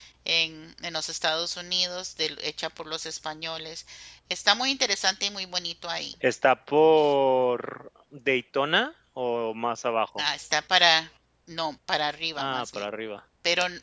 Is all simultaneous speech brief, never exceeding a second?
Yes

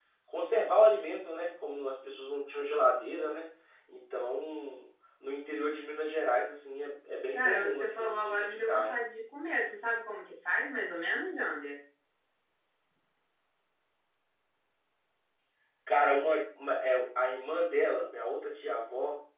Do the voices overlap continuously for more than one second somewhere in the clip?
Yes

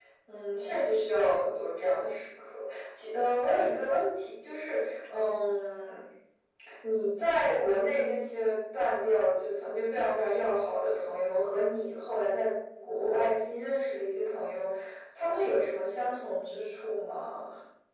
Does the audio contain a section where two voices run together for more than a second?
No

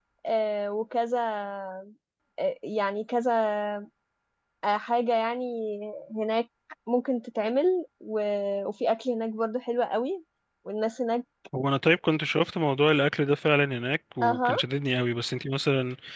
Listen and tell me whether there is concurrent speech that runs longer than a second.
No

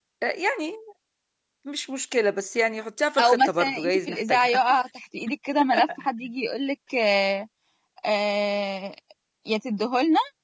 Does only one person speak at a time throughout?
No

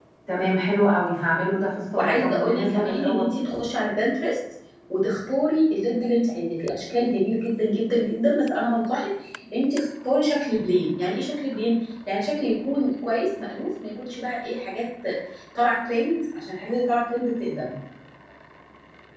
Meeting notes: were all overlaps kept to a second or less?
No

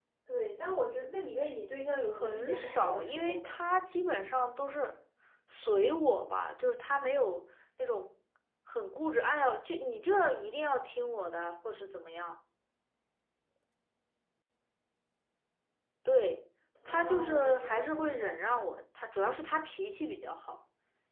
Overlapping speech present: Yes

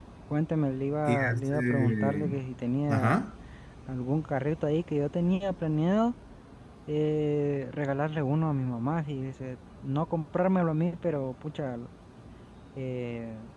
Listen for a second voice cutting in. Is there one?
Yes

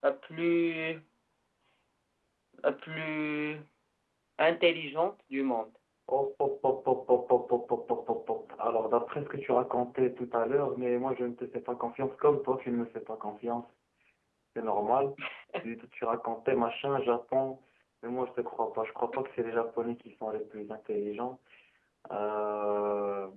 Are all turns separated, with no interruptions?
Yes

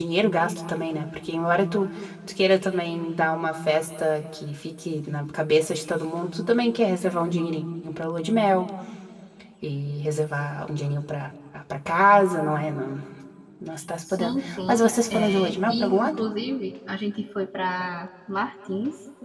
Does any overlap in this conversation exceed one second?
Yes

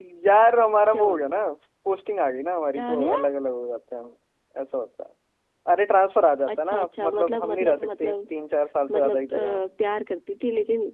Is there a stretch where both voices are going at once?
Yes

